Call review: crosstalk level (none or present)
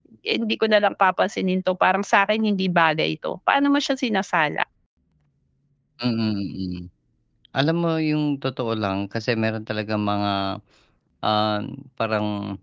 none